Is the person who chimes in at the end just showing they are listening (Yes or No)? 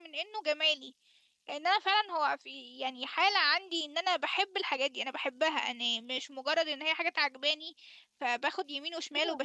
No